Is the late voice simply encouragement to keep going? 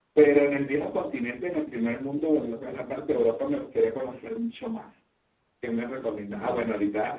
Yes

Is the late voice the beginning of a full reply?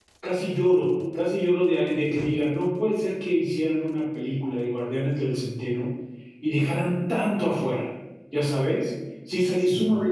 No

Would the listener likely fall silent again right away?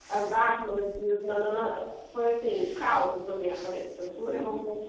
No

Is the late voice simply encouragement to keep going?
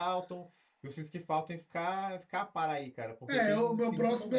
No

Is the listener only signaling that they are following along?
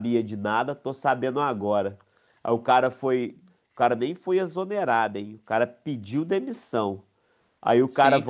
Yes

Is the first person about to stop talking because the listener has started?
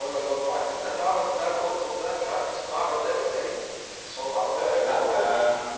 Yes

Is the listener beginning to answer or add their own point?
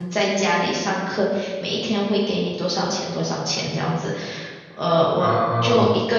No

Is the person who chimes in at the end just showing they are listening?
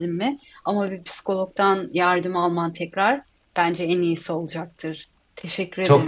No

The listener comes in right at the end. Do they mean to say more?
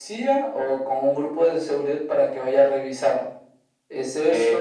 No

